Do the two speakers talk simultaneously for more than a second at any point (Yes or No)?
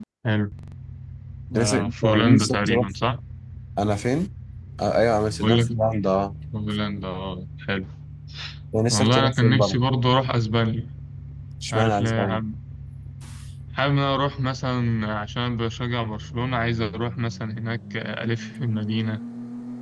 Yes